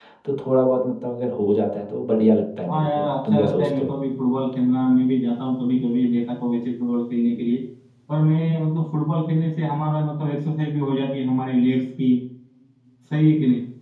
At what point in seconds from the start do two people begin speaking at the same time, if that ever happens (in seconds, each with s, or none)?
2.7 s